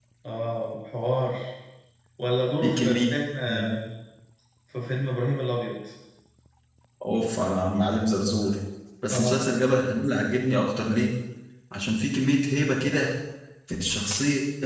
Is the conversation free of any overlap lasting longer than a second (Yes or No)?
Yes